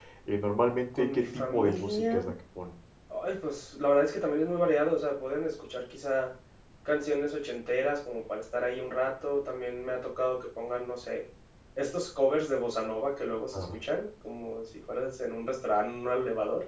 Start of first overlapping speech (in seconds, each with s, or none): 0.9 s